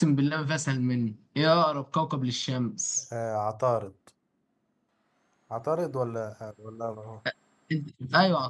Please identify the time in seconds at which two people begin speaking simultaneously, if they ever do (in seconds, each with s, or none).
none